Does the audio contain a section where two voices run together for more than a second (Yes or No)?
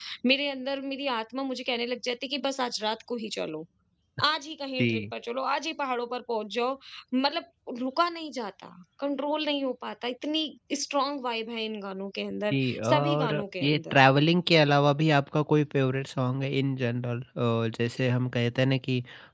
Yes